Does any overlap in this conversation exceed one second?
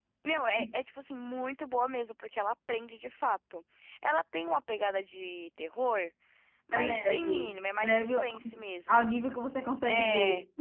Yes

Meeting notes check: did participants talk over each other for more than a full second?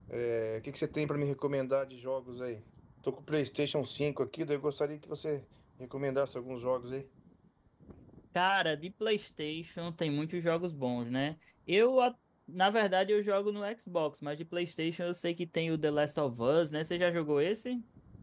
No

